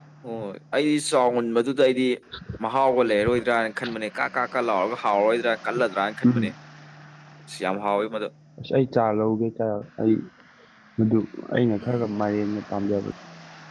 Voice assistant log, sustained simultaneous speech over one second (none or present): none